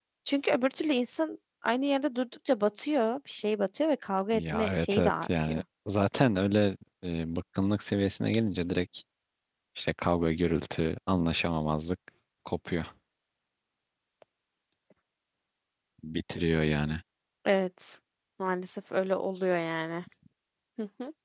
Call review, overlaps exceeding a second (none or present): present